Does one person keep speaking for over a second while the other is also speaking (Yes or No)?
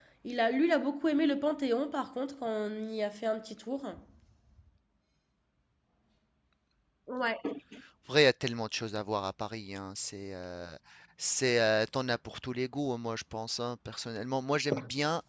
No